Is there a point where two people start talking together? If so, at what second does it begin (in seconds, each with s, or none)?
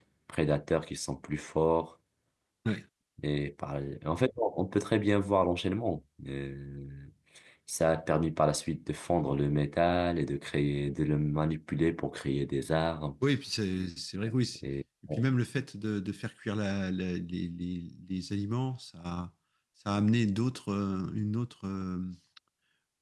none